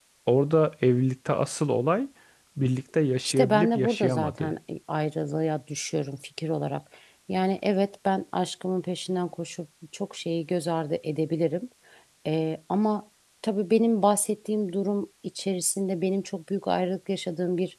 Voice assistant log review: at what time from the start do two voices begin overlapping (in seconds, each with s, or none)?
3.2 s